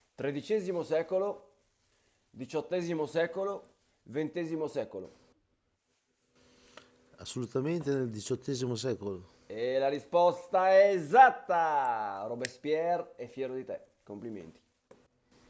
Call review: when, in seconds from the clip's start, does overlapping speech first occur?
none

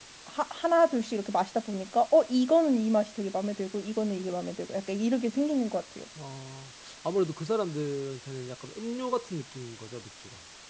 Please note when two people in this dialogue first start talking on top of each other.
none

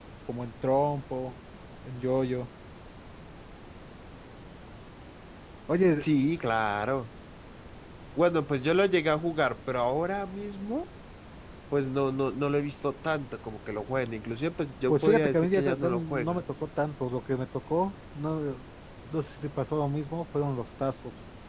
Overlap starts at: 14.9 s

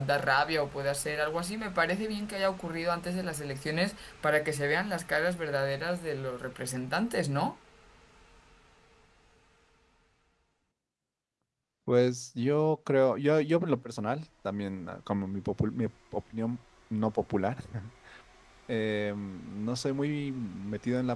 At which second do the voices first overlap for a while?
none

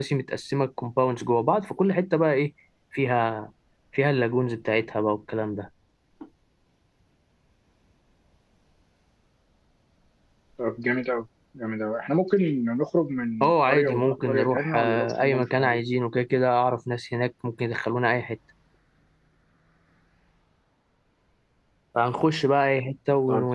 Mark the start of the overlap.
13.4 s

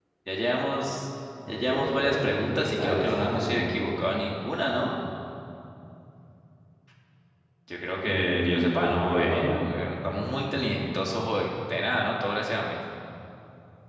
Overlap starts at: 1.7 s

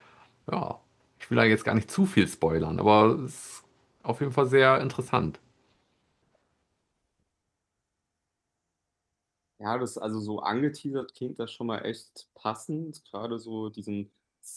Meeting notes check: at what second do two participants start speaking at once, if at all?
none

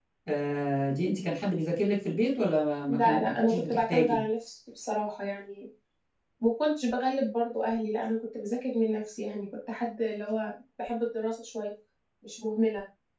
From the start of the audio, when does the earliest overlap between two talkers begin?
2.9 s

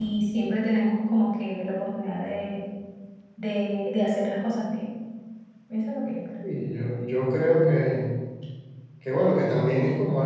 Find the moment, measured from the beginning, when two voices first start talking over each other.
none

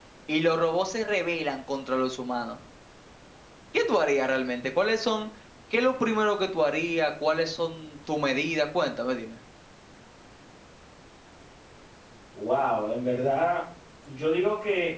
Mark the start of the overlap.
none

